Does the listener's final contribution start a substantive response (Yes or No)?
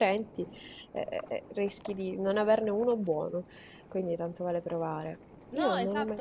Yes